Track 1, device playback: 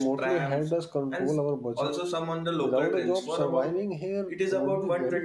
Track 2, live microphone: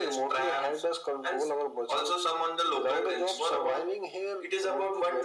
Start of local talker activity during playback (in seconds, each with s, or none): none